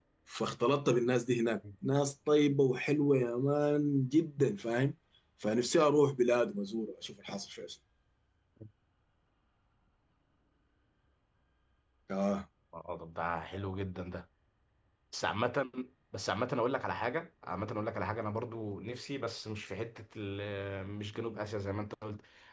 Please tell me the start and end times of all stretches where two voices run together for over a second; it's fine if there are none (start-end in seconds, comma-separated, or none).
none